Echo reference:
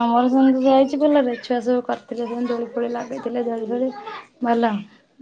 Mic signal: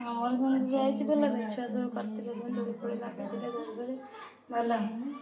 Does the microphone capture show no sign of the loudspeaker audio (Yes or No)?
No